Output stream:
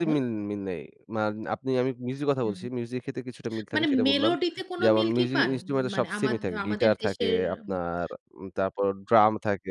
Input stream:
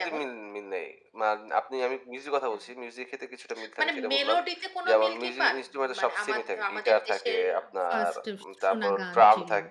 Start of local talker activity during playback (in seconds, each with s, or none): 7.9 s